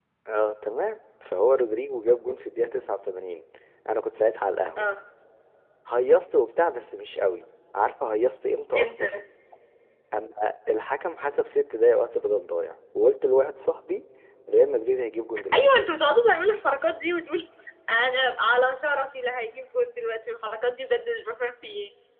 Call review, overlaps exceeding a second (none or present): none